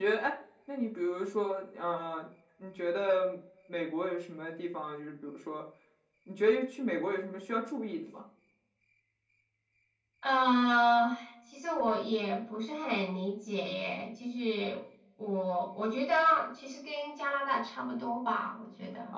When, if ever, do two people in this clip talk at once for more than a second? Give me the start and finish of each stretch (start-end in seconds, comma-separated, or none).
none